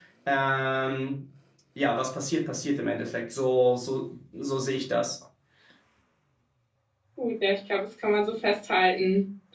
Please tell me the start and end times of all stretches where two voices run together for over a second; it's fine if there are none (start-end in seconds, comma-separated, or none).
none